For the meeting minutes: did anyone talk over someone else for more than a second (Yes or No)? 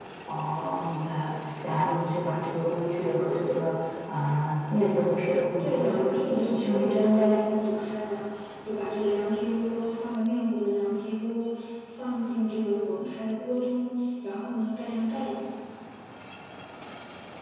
Yes